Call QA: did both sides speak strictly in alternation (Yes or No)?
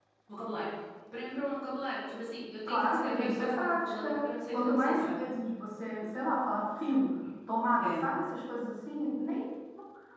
No